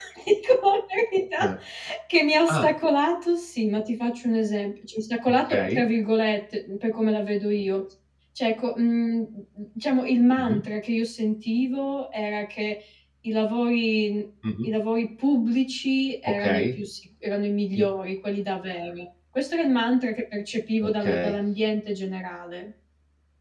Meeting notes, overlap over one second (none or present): none